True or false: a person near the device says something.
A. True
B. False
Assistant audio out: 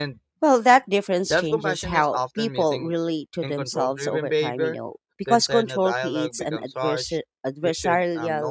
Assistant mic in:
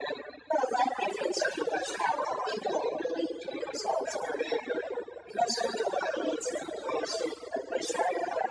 B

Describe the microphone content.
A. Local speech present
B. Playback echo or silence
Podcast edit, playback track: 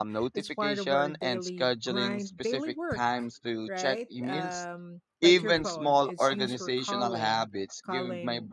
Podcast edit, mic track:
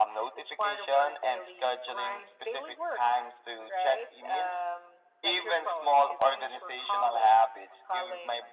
B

